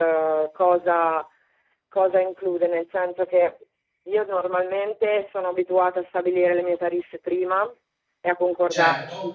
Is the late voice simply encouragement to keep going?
Yes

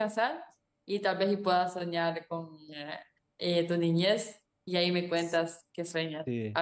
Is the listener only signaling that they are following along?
Yes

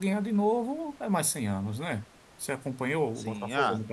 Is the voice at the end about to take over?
Yes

